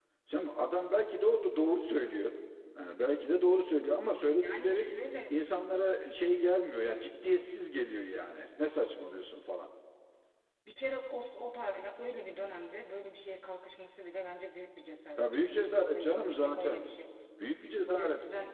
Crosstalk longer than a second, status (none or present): present